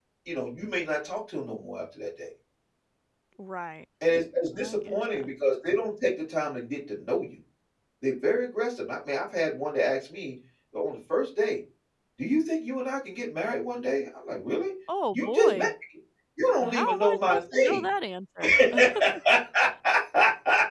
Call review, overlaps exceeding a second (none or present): present